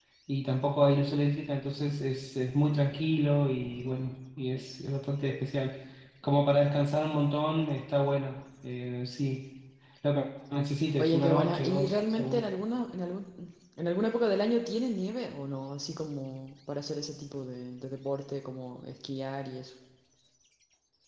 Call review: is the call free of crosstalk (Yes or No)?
No